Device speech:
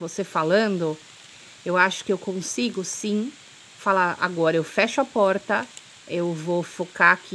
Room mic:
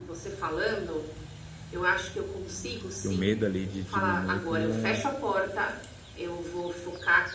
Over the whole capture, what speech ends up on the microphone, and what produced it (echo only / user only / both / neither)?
both